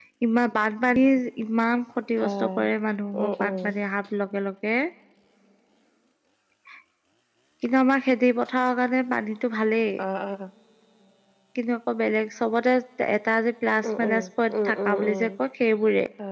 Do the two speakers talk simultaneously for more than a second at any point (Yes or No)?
Yes